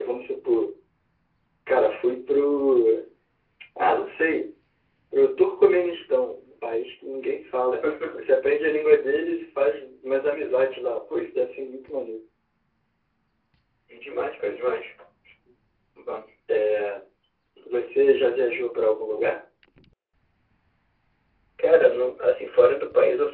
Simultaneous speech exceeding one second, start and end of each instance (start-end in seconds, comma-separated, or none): none